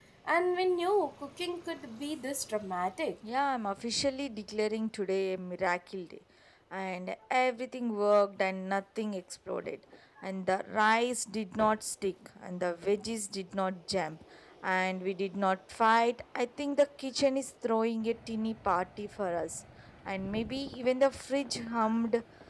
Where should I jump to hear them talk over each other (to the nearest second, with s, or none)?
none